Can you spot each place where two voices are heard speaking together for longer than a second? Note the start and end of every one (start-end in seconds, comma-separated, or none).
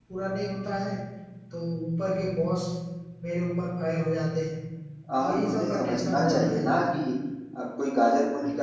5.2-6.9